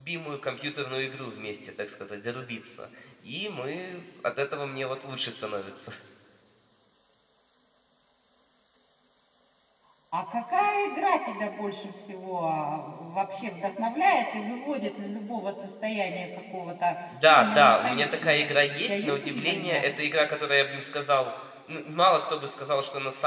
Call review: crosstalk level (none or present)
present